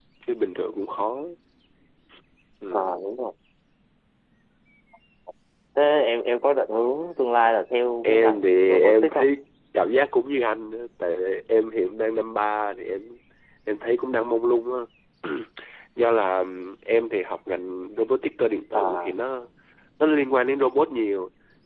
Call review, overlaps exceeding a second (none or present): present